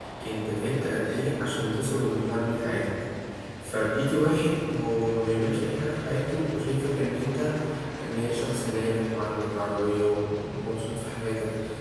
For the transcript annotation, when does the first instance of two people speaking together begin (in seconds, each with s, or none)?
none